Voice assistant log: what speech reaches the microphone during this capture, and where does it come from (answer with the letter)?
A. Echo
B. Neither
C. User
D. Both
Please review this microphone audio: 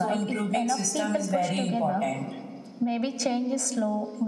A